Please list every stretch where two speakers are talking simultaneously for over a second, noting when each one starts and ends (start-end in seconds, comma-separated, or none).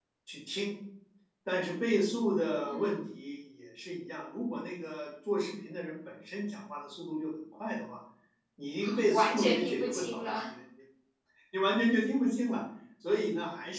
9.1-10.4